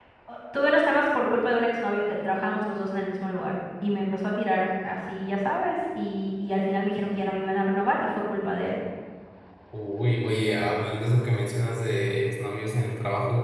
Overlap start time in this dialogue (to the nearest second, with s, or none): none